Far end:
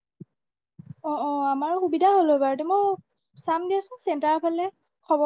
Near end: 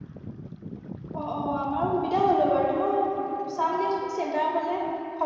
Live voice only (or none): none